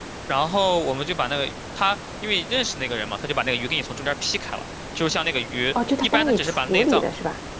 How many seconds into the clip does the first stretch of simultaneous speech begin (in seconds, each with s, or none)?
5.7 s